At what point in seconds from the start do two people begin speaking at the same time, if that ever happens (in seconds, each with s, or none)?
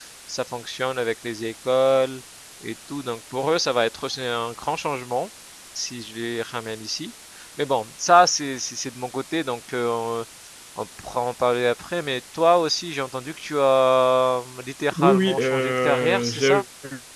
14.9 s